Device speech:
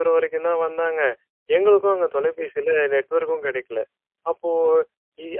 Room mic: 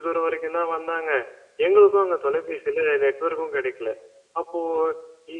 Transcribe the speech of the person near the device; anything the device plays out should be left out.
none

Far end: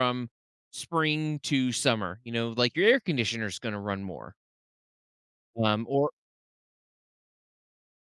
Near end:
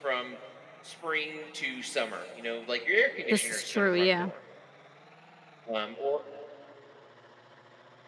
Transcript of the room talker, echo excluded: This is true, yeah.

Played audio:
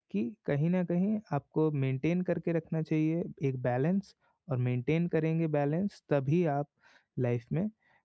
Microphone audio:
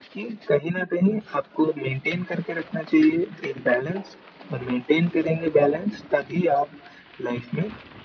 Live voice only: none

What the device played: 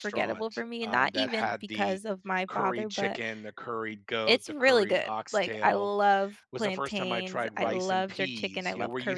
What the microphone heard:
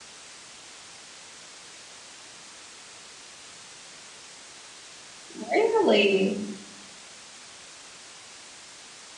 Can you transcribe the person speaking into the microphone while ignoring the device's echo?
Really?

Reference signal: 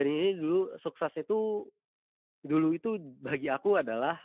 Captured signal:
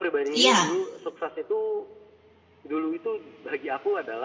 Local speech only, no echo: iya,

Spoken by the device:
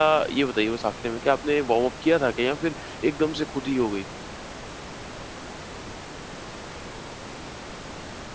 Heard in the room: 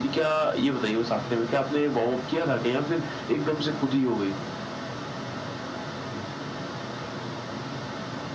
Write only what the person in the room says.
none

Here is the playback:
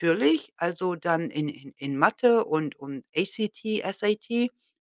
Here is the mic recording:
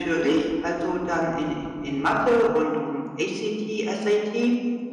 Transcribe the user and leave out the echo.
none

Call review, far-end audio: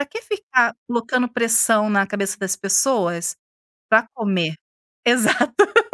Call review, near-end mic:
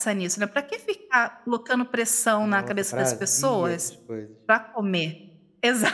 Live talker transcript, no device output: Nossa, prazia essas coisas.

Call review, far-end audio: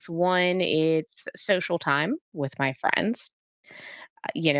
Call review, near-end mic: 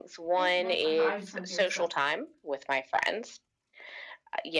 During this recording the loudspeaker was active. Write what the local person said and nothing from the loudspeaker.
yeah. Nope. I thought I was just kinda curious. So,

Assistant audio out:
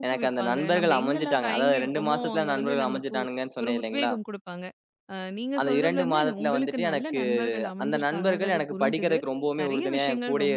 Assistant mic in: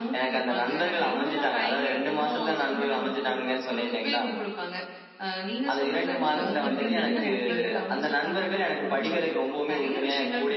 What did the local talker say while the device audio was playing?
அ அப்படின்னு நீங்க நினைப்பீங்க?

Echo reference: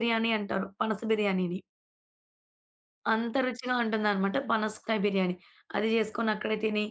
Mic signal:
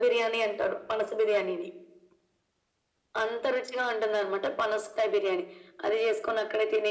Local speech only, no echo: none

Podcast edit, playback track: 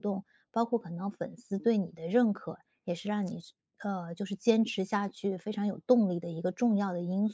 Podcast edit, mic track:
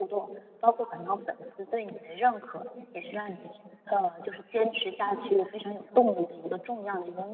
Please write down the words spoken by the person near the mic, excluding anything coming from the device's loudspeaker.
嗯

